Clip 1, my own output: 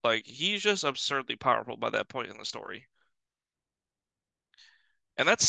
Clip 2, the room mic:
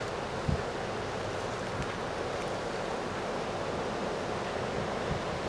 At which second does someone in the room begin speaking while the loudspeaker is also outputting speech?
none

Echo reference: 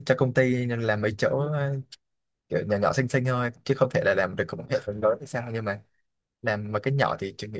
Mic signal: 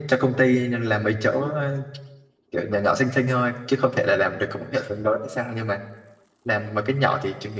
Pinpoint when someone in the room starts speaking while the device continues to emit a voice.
none

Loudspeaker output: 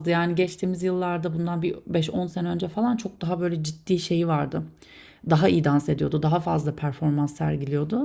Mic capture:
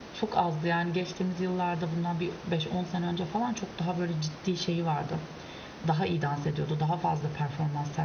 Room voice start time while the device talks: none

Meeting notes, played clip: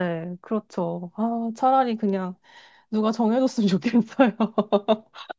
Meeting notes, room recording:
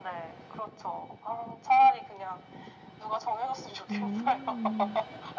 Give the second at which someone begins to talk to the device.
3.9 s

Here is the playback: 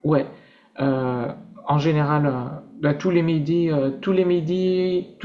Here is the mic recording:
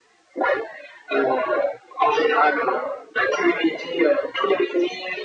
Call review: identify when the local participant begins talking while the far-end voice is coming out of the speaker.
none

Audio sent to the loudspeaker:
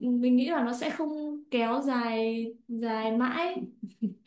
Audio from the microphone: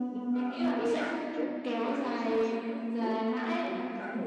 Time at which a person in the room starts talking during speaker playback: 0.3 s

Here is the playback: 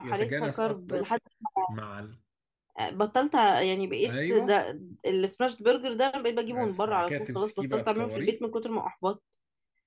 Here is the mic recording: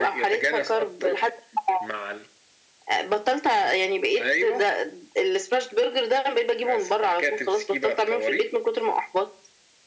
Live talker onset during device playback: none

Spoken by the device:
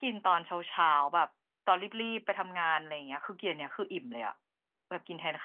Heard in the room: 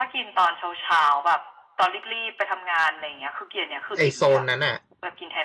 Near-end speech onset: 4.0 s

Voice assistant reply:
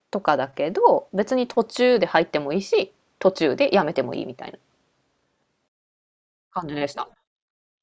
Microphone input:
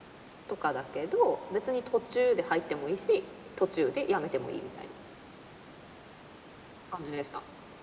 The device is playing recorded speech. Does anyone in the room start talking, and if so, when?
none

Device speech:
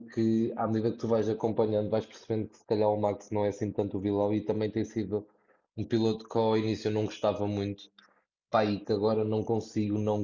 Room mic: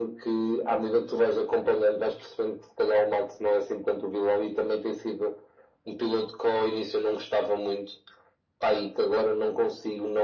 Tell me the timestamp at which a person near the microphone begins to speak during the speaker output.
none

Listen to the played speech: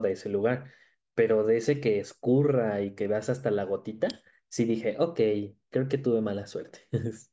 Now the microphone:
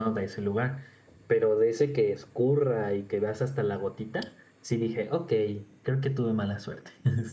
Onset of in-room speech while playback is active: none

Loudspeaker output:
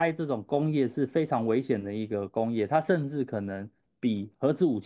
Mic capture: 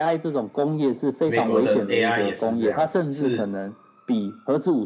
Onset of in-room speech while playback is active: 1.2 s

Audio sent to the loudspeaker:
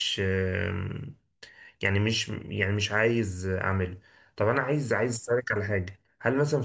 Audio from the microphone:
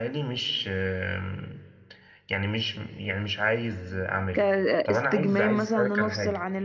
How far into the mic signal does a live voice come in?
4.3 s

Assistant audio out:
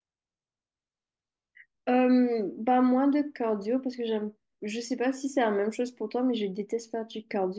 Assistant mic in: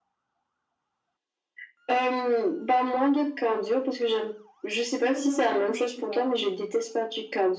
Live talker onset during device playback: 5.0 s

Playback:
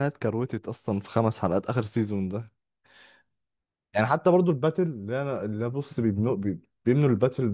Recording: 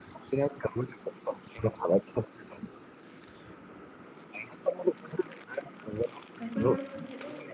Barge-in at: 6.3 s

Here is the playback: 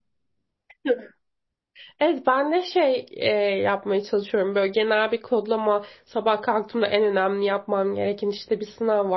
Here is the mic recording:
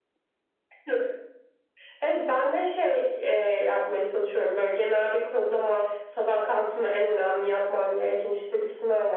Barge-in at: none

